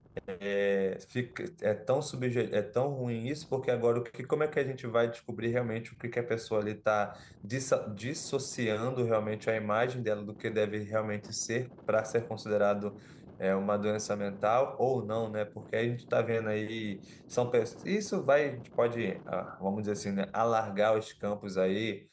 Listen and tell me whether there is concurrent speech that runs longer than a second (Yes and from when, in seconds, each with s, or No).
No